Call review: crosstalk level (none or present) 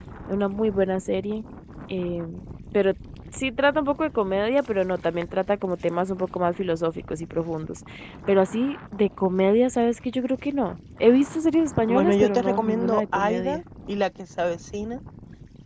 present